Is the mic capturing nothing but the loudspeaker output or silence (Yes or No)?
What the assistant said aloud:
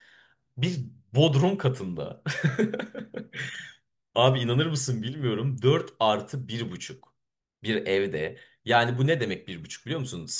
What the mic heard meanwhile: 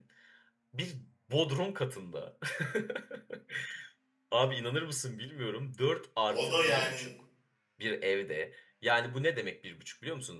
No